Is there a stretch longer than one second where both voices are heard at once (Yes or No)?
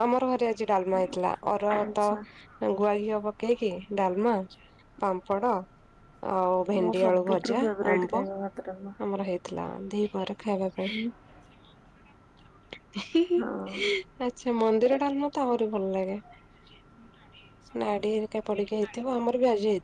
Yes